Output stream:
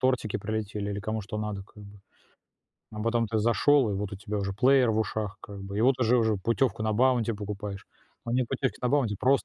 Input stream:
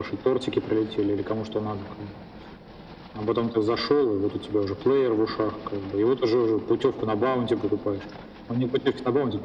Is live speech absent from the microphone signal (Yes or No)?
Yes